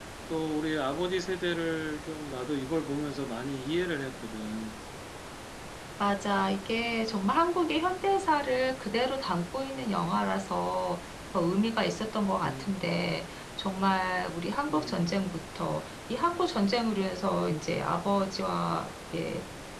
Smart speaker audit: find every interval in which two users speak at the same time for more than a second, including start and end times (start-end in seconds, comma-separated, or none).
none